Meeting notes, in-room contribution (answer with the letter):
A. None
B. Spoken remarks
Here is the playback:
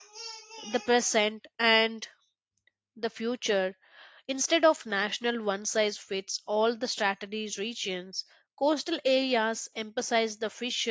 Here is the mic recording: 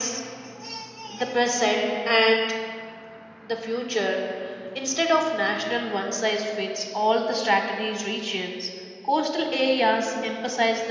A